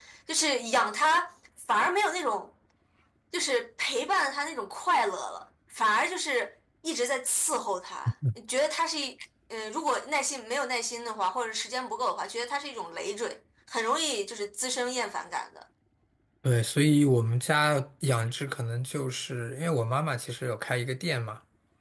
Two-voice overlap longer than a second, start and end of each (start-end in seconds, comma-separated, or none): none